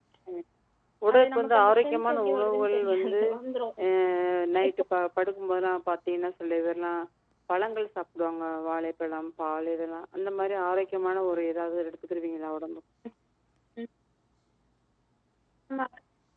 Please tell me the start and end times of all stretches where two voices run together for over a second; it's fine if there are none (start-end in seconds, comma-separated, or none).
1.1-3.2